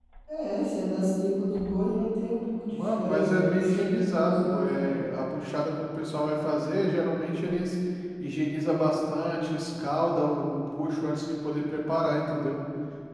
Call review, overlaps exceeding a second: present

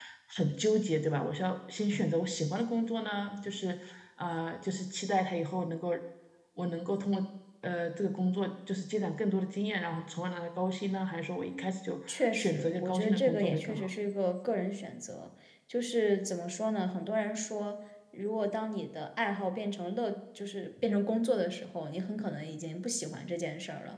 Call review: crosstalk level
present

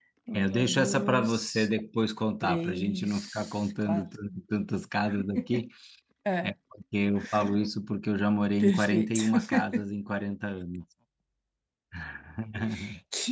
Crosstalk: present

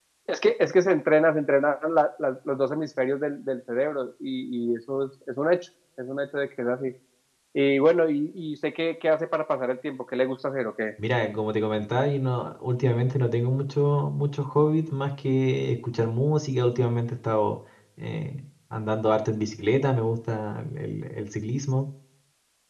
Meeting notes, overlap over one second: none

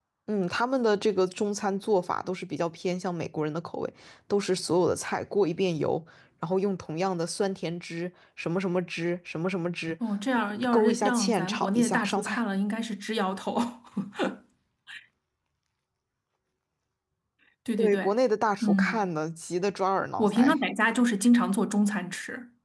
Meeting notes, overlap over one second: present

